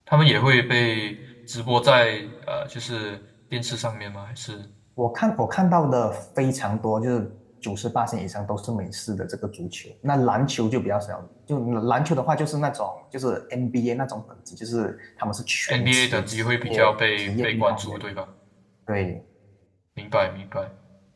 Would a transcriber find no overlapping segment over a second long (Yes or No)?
No